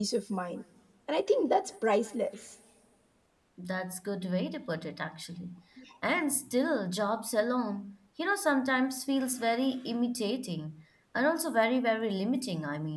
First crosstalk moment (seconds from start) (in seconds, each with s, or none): none